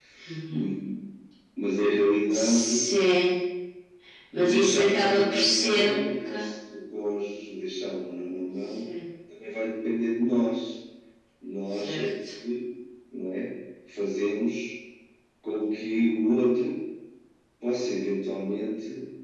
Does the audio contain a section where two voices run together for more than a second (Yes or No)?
Yes